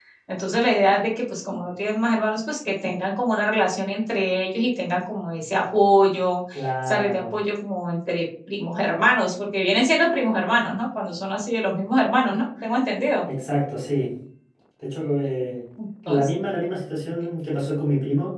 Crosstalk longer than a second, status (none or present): none